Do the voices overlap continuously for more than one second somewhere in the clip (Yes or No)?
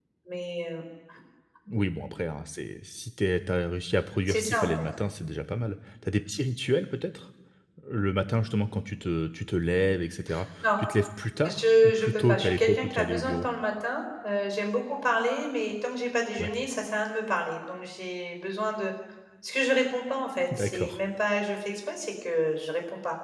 Yes